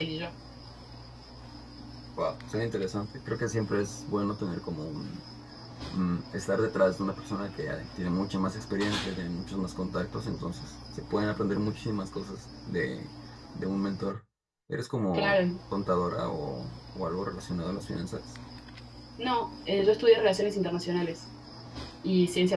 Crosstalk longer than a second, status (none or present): none